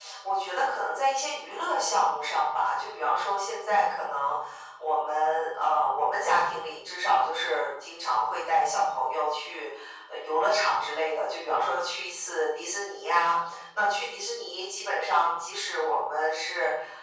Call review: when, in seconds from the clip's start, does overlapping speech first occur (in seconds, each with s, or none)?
none